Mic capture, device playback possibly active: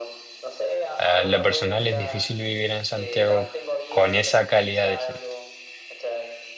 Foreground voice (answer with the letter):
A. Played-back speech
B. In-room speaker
B